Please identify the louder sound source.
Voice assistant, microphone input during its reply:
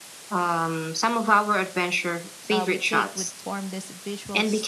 echo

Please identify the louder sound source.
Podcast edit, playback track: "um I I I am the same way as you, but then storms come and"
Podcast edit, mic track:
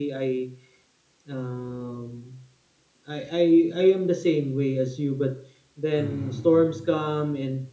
echo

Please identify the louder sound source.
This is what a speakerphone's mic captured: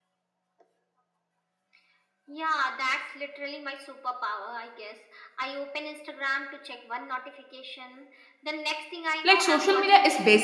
user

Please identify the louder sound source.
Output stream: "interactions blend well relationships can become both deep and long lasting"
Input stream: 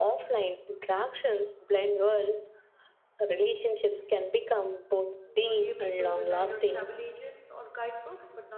echo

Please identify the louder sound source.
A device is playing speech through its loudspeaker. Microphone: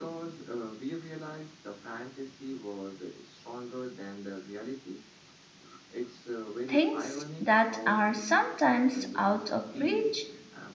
user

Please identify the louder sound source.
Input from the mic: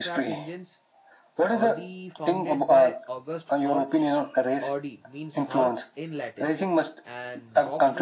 echo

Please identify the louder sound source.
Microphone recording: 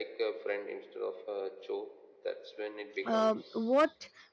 user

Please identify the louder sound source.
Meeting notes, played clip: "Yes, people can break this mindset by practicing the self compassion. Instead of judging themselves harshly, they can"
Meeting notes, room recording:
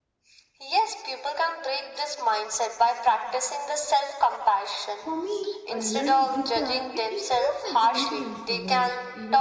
echo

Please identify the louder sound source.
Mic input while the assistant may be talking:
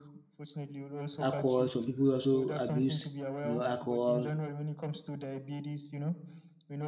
user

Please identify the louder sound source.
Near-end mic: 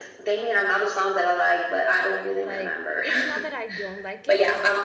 echo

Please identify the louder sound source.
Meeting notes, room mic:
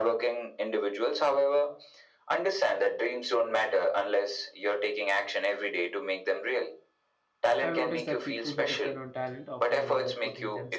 echo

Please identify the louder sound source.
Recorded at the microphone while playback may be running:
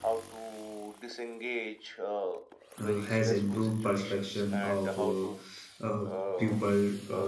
user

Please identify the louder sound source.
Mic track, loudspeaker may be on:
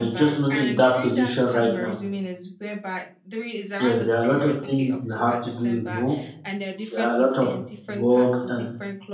user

